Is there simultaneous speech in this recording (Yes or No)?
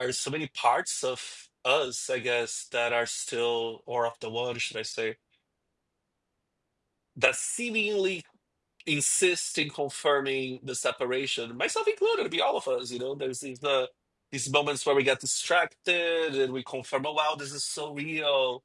No